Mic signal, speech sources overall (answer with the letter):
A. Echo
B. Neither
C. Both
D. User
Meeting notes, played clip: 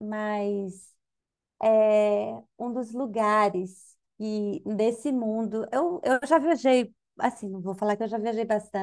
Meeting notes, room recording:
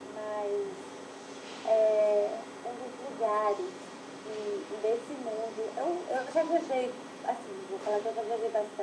A